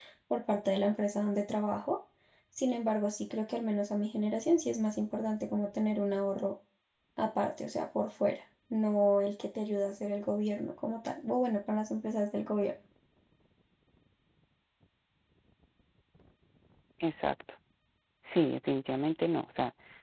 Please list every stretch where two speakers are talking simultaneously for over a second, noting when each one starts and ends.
none

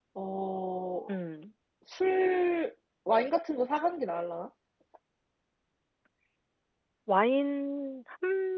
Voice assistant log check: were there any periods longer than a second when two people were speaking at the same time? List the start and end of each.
none

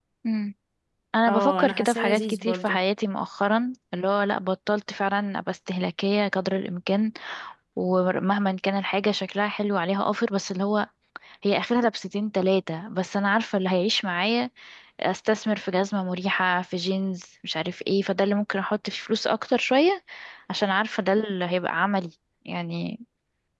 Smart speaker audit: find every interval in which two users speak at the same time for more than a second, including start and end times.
1.3-2.8

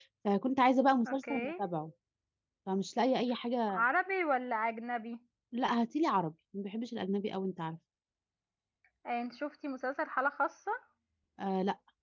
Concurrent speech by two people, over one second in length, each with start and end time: none

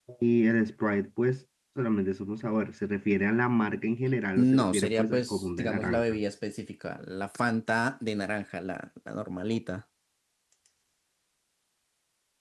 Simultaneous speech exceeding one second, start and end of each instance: 4.4-6.2

